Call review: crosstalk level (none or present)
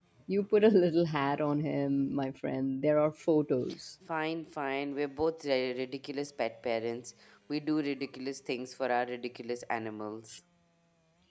none